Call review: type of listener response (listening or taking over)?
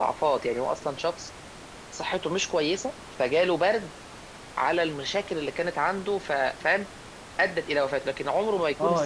taking over